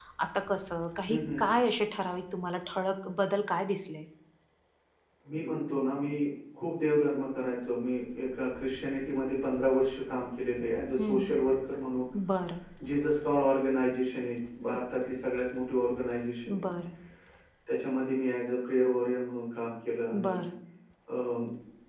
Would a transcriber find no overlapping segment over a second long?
Yes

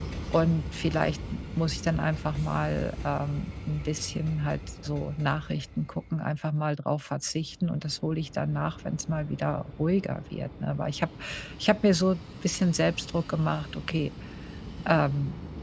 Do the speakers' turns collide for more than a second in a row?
No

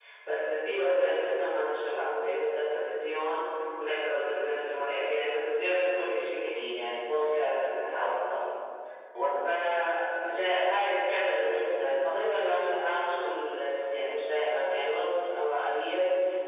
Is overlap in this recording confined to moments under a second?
Yes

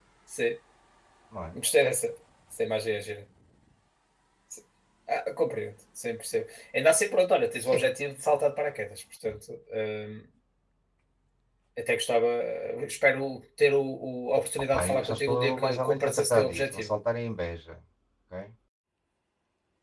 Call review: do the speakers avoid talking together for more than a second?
No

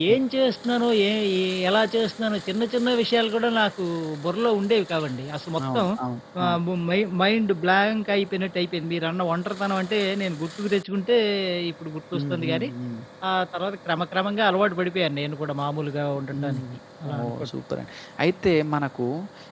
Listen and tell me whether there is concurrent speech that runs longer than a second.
No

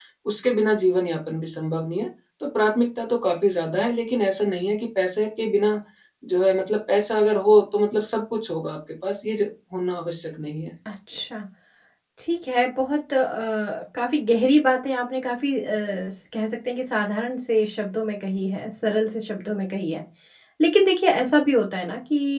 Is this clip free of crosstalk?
Yes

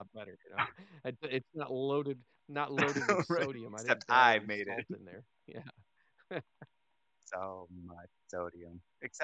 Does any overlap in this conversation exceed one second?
Yes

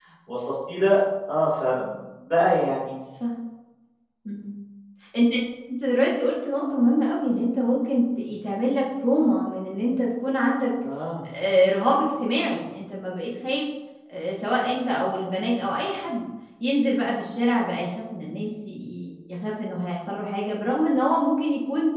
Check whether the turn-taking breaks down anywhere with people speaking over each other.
No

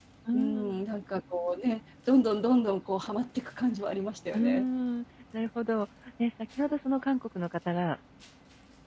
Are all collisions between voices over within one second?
Yes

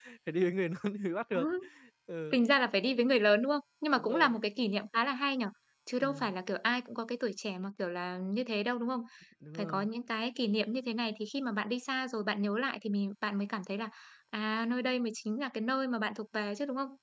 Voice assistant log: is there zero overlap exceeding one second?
Yes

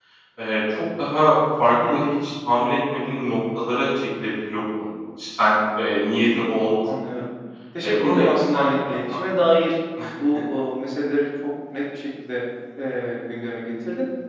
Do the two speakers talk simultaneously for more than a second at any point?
Yes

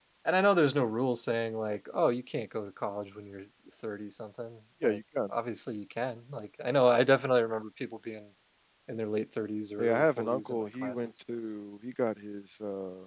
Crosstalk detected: Yes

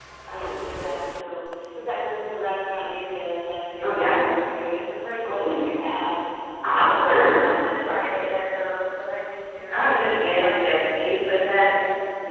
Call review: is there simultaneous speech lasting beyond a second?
Yes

